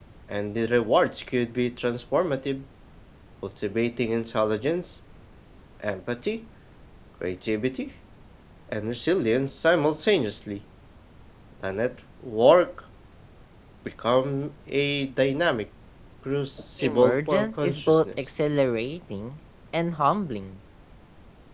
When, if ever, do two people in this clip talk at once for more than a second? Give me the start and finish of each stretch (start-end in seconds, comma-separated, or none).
16.8-18.3